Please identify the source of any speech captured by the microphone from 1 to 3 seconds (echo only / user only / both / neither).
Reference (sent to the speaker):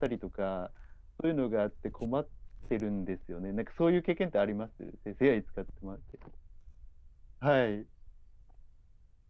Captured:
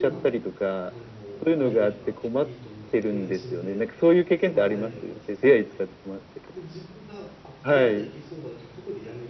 both